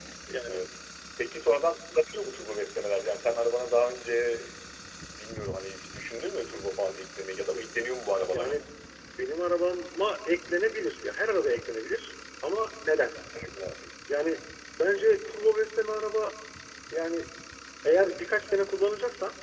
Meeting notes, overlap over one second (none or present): none